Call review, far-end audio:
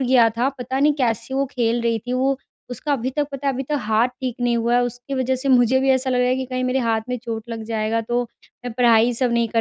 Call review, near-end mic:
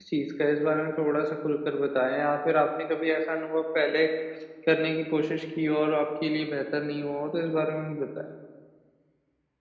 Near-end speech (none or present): present